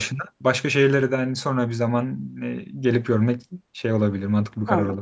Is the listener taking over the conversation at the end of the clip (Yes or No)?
Yes